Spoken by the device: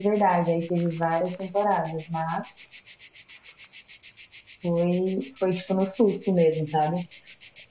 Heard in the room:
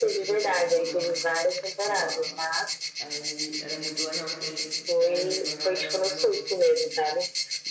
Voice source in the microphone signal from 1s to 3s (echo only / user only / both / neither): both